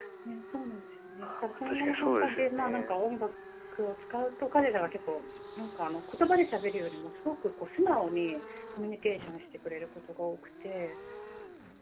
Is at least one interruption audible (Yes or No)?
Yes